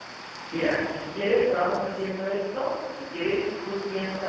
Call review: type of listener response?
listening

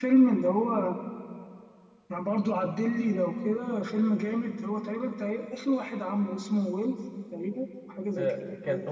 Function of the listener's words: taking over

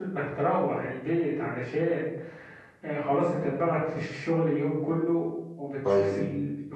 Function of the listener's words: listening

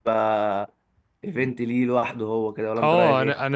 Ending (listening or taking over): taking over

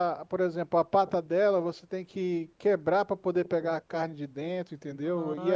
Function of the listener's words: taking over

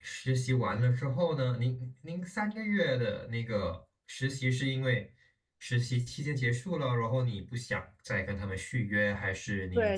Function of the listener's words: taking over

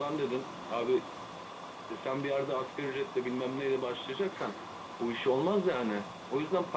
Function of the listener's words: taking over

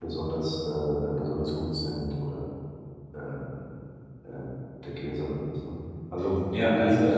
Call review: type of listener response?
taking over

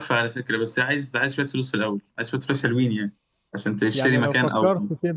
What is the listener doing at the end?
taking over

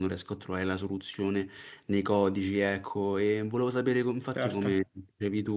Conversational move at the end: listening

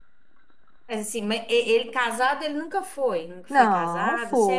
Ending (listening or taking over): taking over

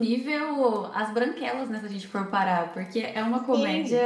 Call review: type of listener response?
taking over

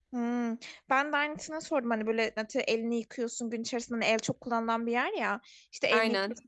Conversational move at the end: listening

